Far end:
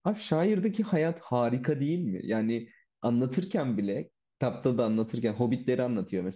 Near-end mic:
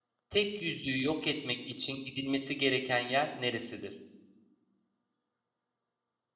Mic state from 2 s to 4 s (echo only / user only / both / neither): user only